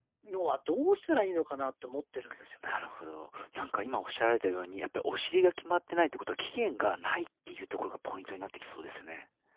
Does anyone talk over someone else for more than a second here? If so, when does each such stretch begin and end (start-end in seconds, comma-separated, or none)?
none